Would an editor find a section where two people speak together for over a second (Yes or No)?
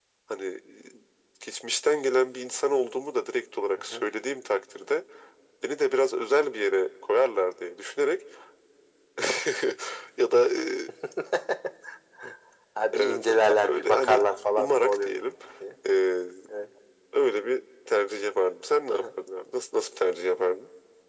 Yes